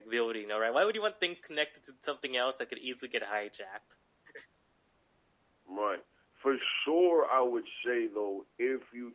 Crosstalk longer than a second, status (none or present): none